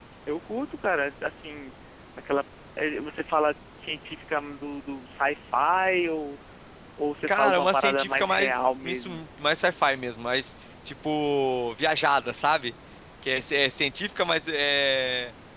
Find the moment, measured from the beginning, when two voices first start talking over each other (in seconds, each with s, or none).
7.3 s